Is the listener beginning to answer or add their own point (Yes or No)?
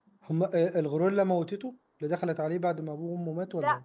Yes